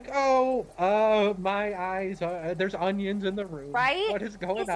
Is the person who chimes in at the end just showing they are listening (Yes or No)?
No